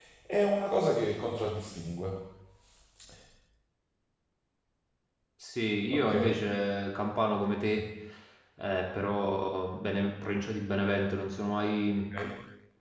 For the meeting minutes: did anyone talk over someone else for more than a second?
No

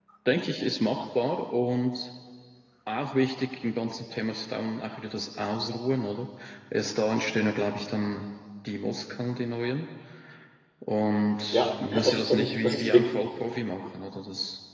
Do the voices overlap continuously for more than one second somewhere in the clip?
Yes, from 11.5 s

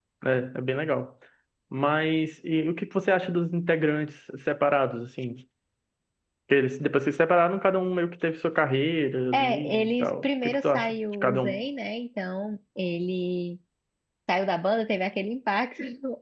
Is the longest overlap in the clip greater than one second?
Yes, from 9.3 s

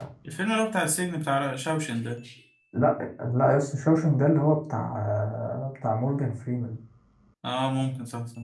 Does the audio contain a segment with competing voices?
No

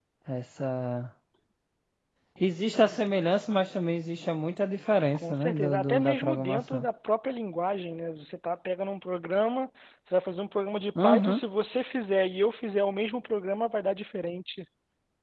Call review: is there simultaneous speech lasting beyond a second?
Yes, from 5.1 s

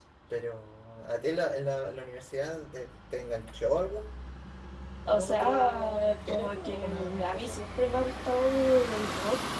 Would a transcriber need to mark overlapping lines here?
Yes, from 5.1 s

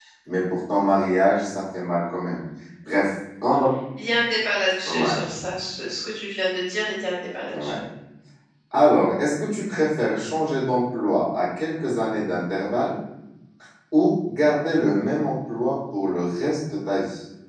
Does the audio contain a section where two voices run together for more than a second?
No

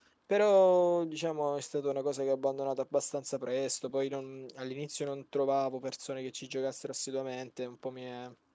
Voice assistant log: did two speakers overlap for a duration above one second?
No

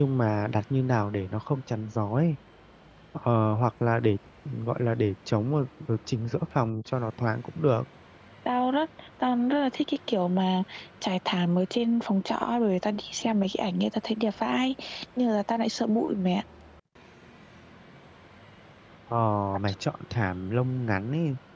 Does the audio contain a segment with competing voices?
No

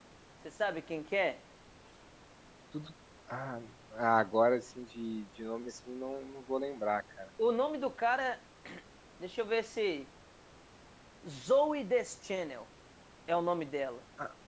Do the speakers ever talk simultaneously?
No

